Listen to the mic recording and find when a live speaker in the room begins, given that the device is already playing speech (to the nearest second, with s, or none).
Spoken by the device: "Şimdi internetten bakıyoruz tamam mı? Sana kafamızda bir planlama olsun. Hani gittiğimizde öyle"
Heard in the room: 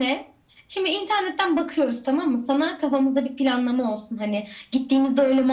none